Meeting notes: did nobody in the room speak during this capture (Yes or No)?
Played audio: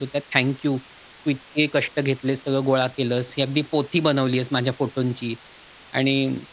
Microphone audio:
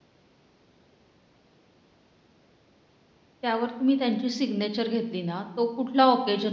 No